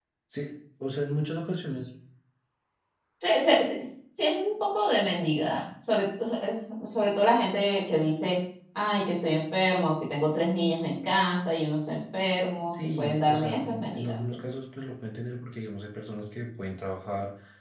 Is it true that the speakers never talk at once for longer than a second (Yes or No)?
No